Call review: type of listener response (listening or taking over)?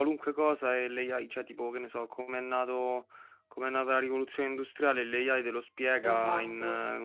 listening